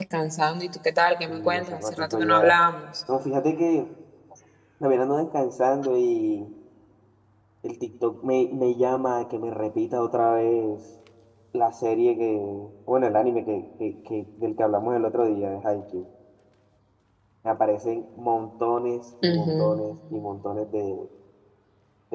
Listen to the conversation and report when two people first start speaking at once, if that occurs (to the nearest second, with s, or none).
1 s